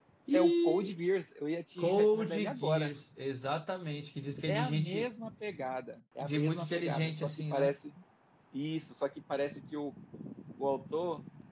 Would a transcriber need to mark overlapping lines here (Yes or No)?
Yes